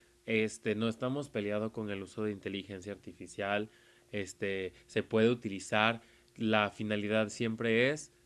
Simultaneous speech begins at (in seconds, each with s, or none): none